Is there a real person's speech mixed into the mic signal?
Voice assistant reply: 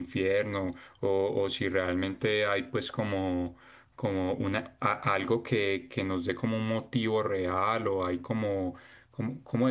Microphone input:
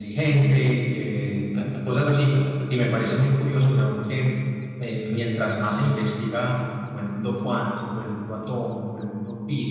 Yes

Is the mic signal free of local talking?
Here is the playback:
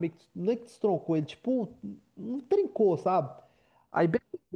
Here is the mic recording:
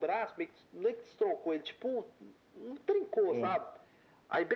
No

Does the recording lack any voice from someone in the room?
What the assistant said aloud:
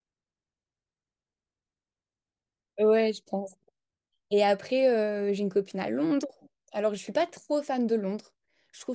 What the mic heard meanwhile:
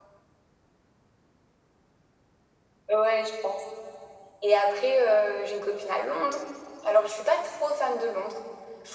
Yes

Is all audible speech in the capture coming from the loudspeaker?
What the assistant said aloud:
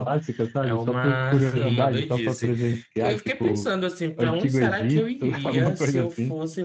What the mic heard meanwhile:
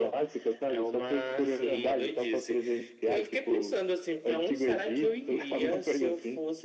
Yes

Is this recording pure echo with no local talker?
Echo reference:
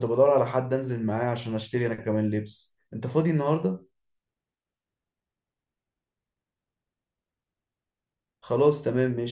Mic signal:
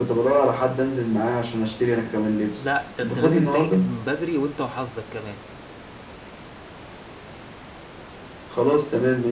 No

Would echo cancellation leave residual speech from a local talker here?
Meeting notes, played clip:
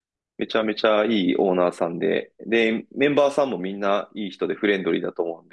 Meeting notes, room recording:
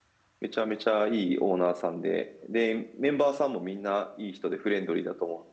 No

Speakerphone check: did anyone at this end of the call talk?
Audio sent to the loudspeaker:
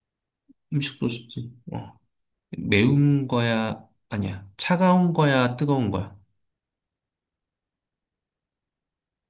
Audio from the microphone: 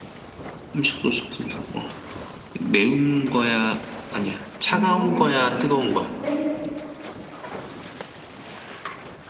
Yes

